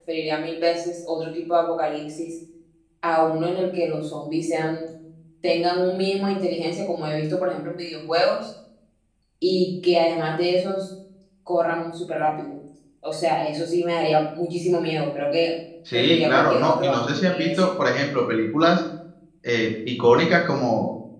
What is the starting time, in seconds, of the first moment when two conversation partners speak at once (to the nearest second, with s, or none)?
16 s